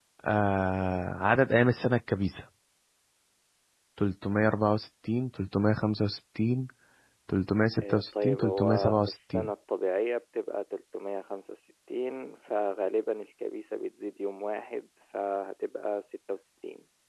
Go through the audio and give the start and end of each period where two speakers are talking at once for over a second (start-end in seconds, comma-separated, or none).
7.8-9.5